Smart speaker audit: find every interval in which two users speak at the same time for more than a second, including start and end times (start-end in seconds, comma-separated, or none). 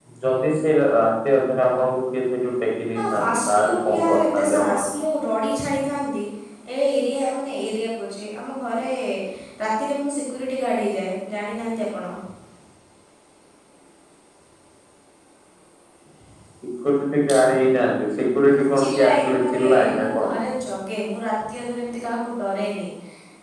3.0-4.9, 18.5-20.3